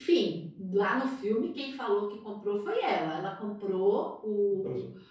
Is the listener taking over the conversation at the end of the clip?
No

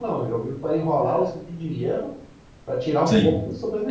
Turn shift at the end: Yes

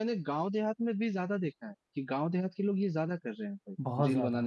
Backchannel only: No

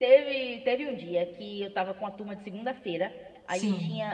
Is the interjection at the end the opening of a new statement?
No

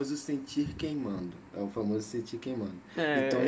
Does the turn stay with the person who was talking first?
No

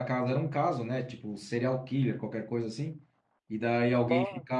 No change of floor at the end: Yes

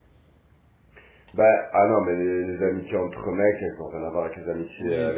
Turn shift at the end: No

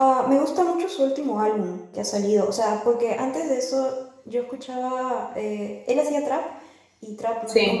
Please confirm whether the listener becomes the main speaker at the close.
No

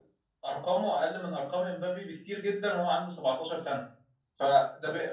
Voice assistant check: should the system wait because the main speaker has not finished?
Yes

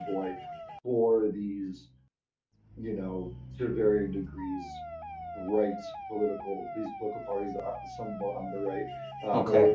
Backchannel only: Yes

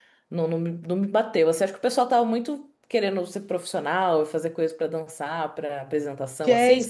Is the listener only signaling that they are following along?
No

